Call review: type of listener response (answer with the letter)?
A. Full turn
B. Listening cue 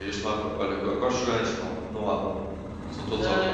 A